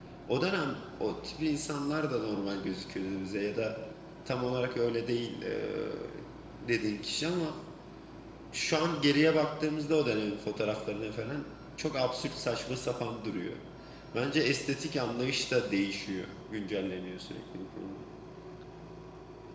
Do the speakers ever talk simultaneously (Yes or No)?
No